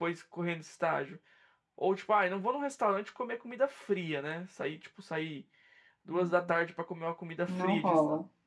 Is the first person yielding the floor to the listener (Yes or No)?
No